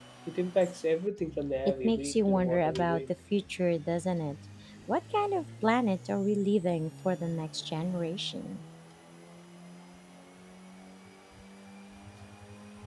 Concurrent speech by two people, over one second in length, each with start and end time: 1.6-3.0

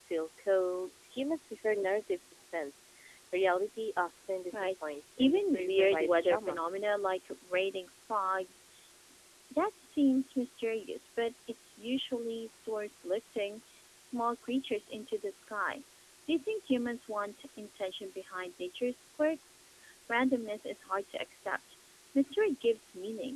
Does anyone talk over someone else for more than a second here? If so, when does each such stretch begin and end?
5.2-6.6

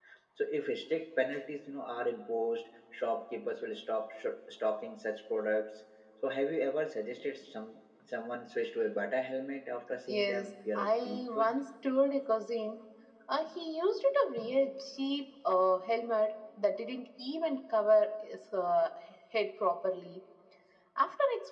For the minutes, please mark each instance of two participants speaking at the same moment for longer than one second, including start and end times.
10.1-11.6

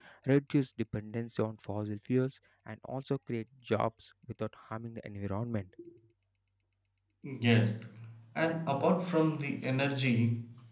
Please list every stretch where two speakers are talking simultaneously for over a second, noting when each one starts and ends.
none

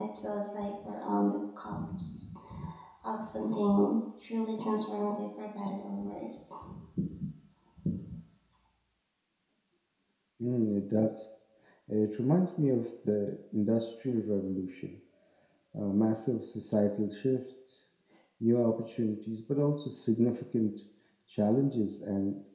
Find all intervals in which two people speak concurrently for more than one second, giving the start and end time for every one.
none

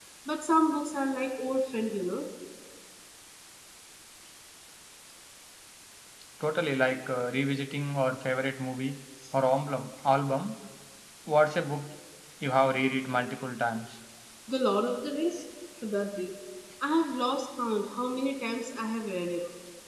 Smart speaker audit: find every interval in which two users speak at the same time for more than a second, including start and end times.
none

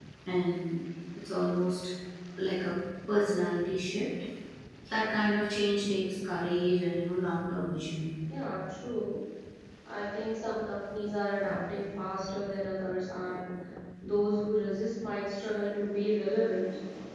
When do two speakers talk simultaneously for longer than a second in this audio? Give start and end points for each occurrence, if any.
none

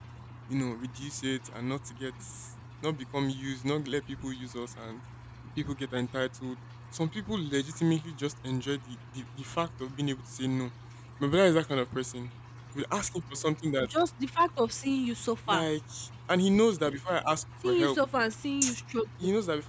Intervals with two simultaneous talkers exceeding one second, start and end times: none

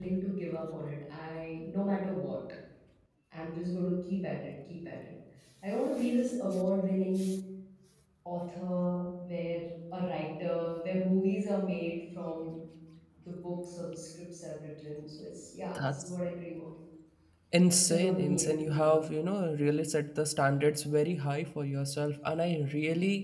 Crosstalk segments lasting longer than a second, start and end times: 17.7-19.0

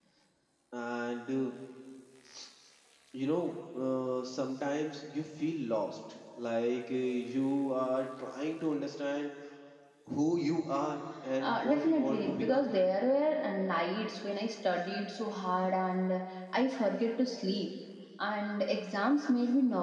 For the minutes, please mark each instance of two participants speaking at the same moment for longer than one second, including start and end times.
11.4-12.6

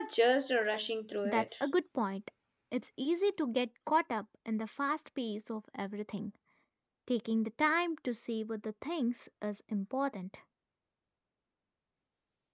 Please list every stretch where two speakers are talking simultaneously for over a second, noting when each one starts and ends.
none

